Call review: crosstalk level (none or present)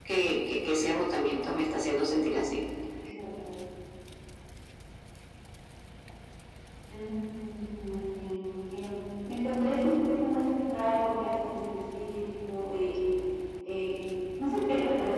none